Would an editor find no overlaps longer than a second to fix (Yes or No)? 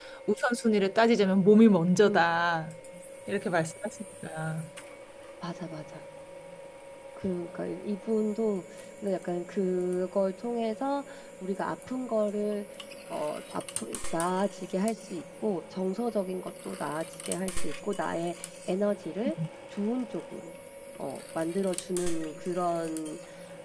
Yes